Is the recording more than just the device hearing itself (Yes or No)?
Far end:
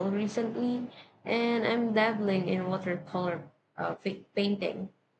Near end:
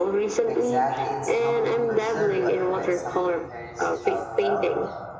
Yes